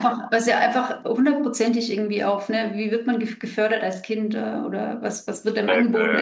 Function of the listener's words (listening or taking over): taking over